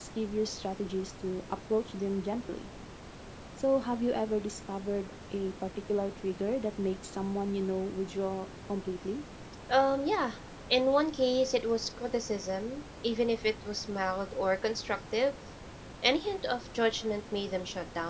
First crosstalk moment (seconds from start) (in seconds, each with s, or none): none